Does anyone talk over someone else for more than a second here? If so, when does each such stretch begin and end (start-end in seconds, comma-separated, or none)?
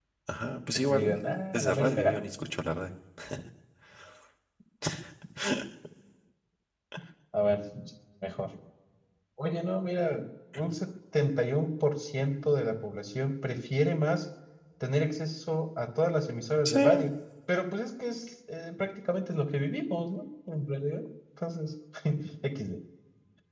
0.7-2.2